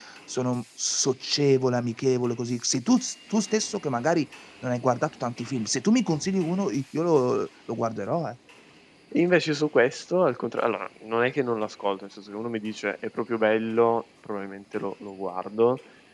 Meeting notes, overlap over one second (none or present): none